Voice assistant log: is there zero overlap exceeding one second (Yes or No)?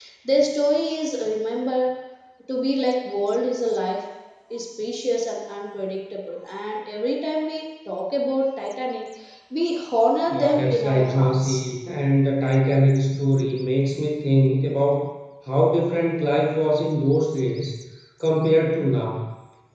No